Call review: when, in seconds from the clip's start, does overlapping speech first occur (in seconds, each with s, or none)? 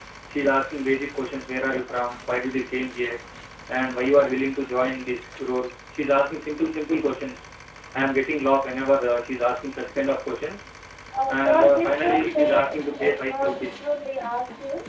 11.3 s